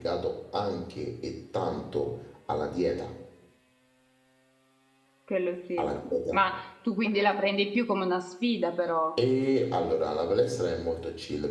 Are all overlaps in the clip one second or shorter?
Yes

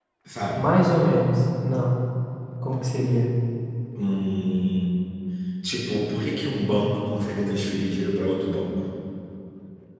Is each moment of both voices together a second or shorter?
Yes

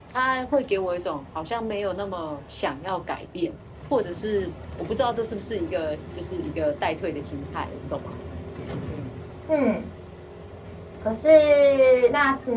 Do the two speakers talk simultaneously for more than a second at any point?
No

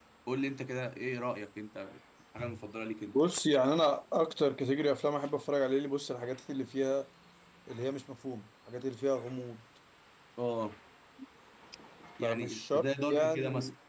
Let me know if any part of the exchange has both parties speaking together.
Yes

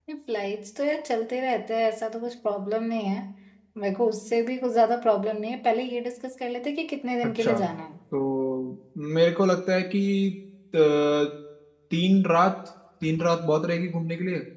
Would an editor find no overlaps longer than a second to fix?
Yes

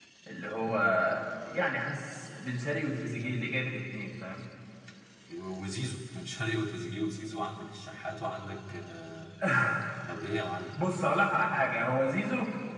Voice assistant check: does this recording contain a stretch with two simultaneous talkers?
No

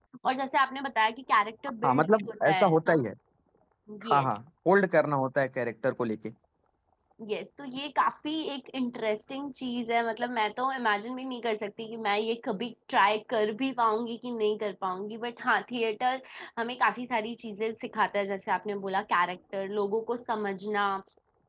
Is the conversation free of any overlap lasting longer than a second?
No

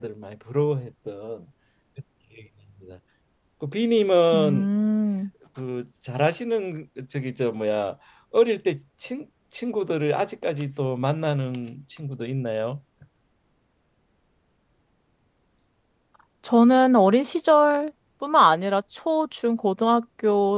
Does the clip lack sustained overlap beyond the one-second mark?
Yes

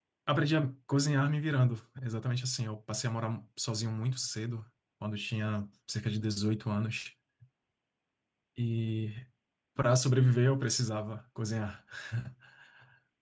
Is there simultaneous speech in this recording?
No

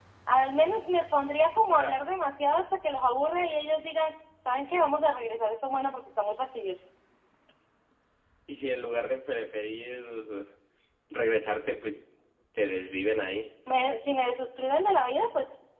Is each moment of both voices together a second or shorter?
Yes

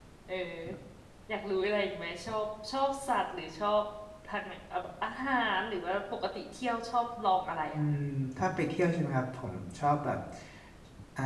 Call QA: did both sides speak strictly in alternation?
Yes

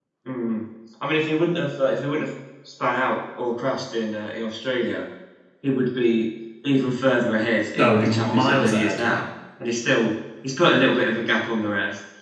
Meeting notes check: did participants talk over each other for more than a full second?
Yes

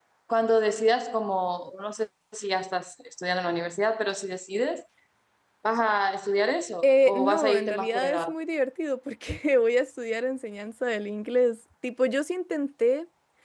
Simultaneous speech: Yes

